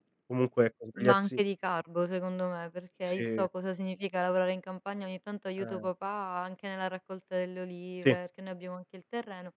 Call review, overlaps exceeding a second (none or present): none